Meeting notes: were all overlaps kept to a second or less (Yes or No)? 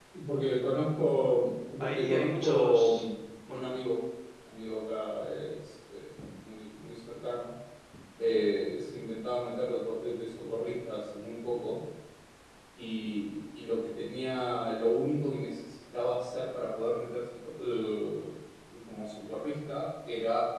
No